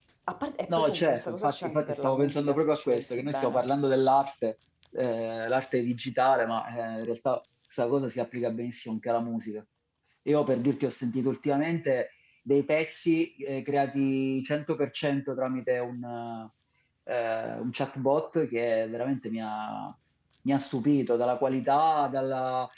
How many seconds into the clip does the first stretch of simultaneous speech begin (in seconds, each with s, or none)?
0.7 s